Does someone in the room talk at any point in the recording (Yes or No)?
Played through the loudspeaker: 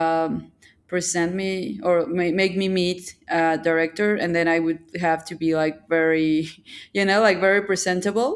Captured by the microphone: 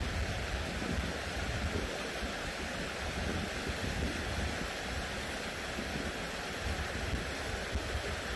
No